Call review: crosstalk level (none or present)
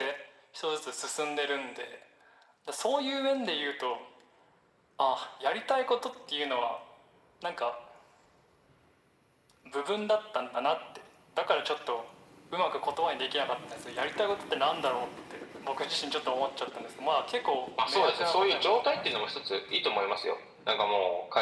present